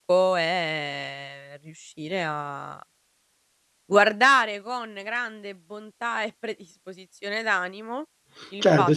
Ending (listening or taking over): taking over